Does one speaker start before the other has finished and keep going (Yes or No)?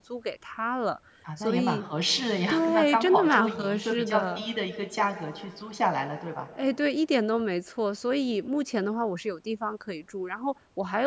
Yes